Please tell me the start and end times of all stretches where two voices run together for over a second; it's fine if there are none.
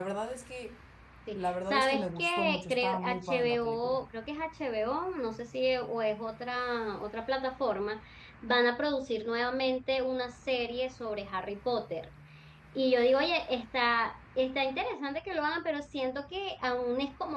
1.3-4.0

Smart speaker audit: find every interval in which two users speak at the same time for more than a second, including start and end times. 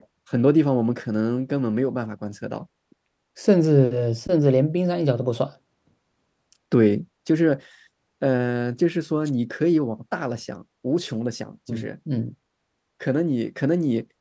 none

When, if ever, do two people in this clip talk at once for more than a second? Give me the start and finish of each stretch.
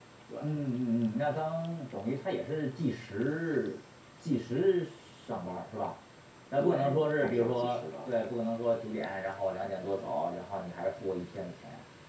6.6-8.1

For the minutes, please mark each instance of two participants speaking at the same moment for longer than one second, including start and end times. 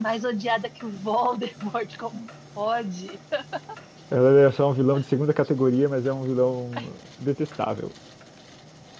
none

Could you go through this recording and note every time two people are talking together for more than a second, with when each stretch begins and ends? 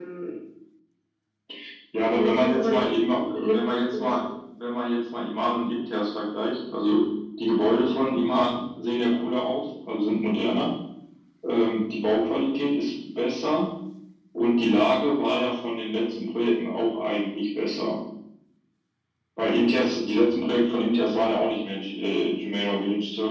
2.0-3.5

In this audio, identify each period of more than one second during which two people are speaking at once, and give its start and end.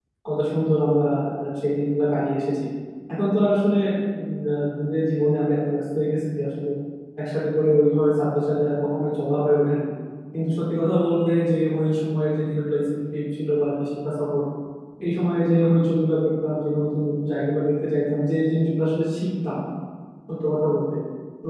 none

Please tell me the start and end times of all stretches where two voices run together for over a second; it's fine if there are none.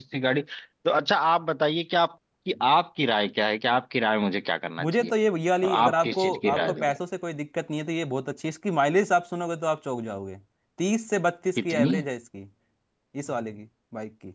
5.6-7.0

